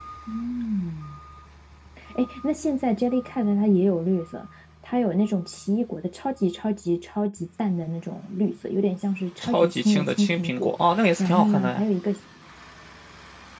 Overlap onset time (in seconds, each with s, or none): 9.4 s